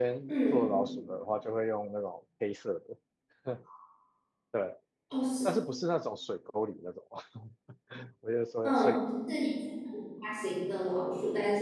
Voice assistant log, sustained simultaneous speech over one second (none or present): none